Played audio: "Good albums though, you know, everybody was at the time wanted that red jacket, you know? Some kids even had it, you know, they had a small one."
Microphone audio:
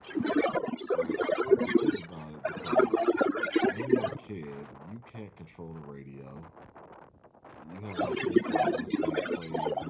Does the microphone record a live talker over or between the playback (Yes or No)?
Yes